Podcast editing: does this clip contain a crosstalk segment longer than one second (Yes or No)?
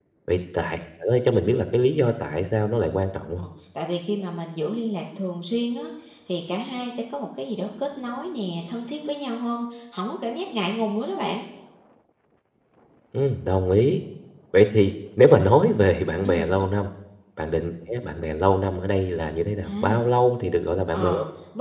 No